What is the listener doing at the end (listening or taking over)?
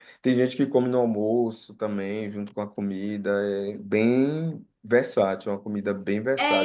taking over